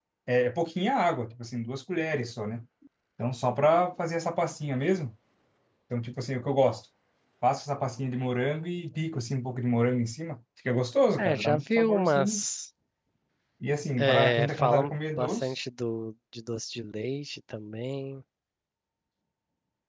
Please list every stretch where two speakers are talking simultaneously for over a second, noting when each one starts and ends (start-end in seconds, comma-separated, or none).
11.2-12.4, 14.0-15.5